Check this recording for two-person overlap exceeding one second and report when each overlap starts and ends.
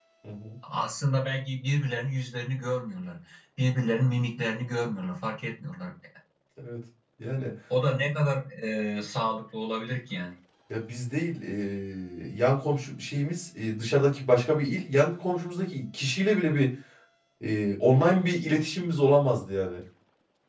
none

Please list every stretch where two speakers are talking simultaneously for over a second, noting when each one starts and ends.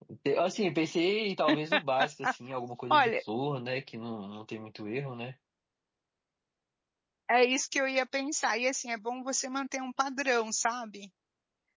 none

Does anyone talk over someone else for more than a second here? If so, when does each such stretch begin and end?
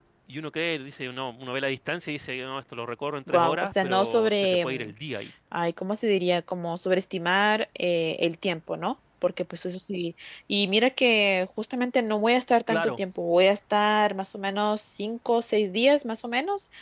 3.3-4.9

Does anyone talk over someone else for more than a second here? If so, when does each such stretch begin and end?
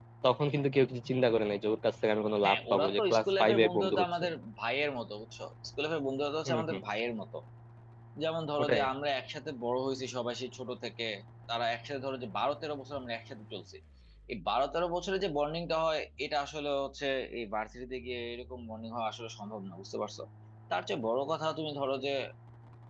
2.4-4.0

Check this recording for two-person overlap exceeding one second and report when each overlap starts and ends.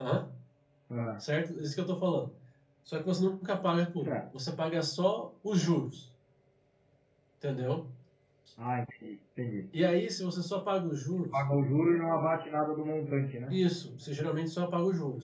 none

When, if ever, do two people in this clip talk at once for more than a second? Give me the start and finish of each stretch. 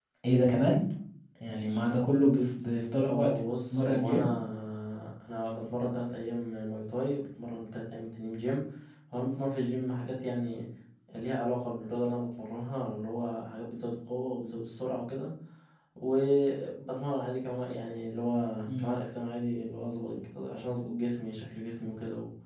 3.1-4.3

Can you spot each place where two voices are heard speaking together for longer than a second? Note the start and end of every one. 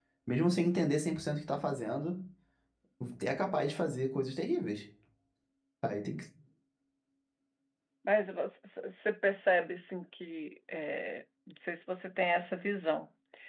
none

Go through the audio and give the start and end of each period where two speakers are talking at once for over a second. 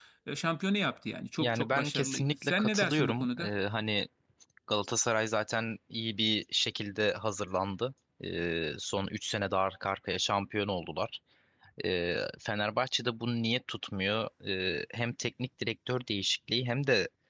1.4-3.5

